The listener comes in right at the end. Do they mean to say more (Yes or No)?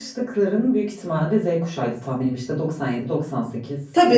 Yes